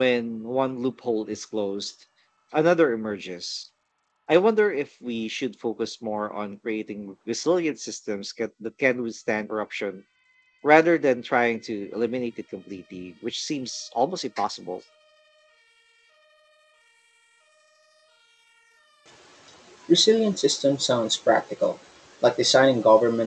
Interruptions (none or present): none